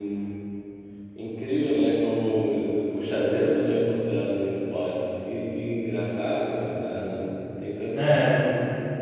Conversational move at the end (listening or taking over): taking over